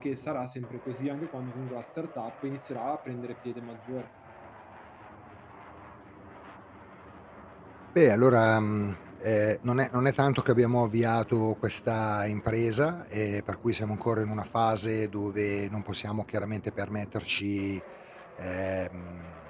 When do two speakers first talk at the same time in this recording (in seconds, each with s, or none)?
none